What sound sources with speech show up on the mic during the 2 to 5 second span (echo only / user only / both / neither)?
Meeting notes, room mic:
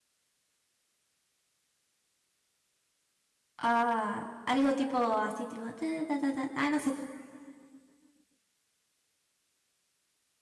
user only